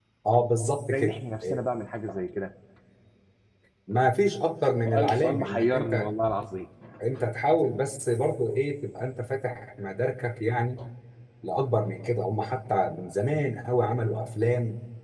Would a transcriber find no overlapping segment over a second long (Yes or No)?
No